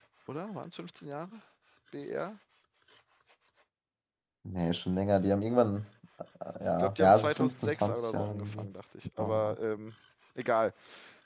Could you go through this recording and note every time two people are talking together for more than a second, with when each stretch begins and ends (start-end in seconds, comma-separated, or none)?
6.8-8.7